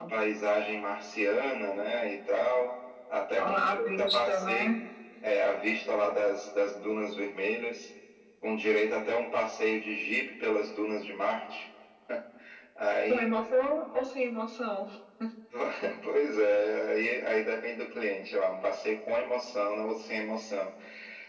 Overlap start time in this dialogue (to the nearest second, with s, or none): 3 s